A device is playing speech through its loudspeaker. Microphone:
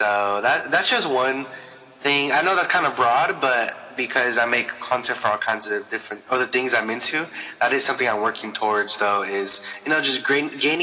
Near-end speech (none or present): none